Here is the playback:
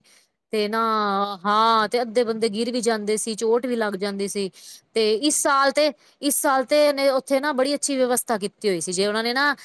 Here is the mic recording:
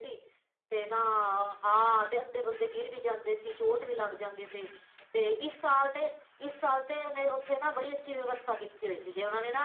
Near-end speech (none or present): none